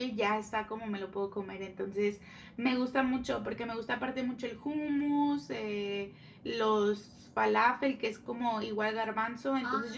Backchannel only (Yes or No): No